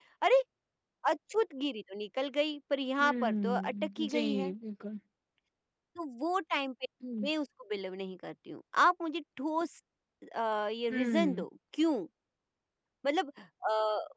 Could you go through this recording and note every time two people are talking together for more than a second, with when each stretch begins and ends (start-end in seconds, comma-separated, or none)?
3.0-4.5